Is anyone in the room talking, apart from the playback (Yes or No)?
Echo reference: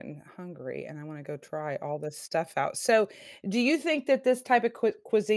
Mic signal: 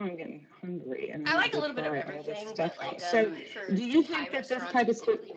Yes